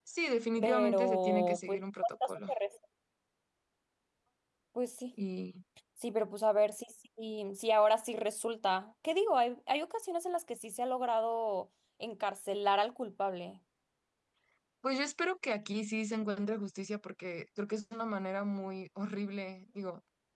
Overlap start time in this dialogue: 0.6 s

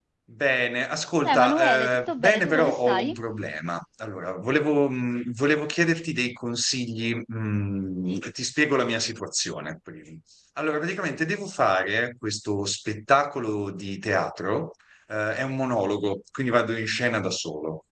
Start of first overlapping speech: 1.2 s

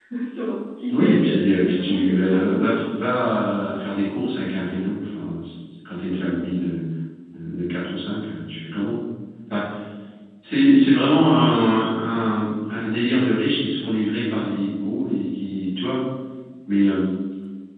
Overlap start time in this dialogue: 0.9 s

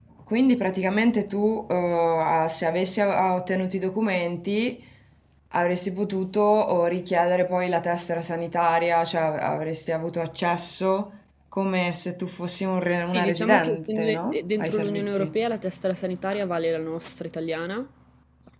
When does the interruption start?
13.0 s

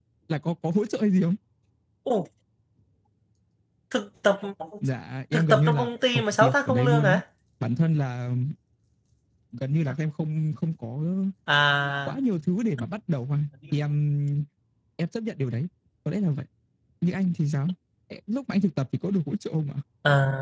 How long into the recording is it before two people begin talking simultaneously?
5.3 s

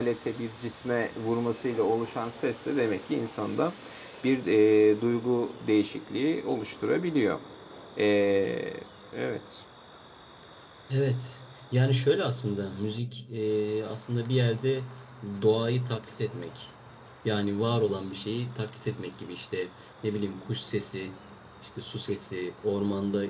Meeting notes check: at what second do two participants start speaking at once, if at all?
none

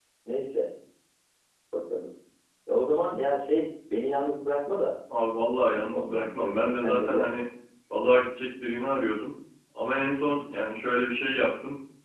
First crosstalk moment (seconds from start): 5.9 s

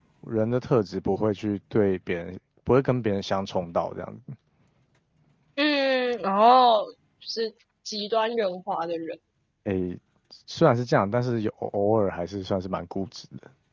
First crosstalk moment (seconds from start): none

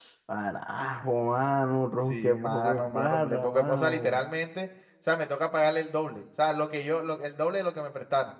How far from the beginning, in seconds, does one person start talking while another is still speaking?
2.1 s

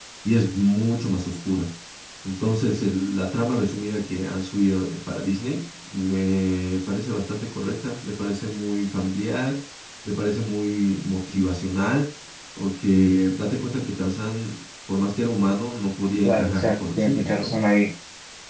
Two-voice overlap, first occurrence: 16.2 s

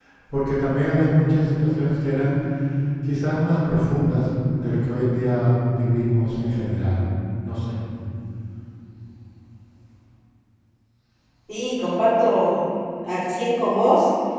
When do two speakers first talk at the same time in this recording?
none

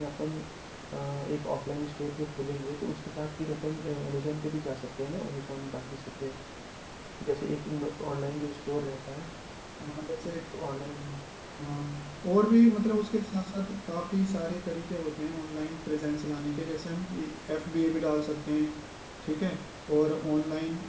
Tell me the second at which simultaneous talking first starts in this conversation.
none

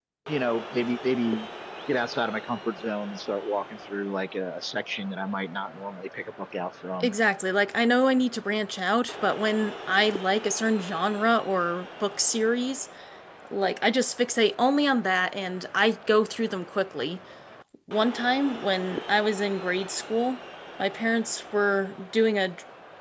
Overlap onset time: none

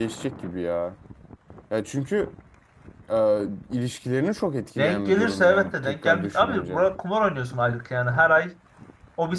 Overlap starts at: 4.8 s

